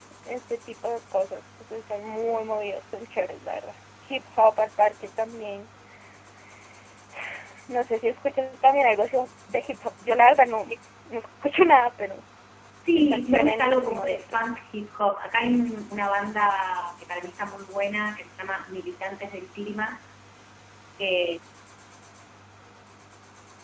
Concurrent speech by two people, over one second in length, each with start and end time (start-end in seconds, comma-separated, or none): 12.9-14.5